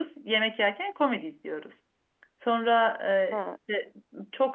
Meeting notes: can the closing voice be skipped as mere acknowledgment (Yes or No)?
Yes